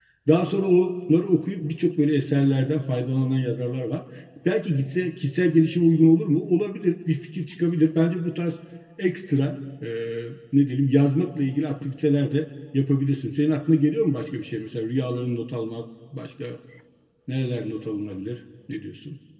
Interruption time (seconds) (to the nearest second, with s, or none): none